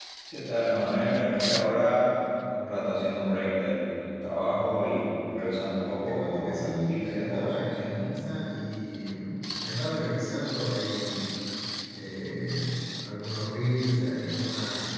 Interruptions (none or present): present